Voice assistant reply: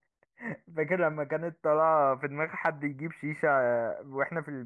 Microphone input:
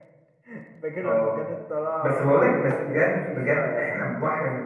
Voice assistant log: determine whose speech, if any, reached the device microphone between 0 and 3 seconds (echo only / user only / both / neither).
both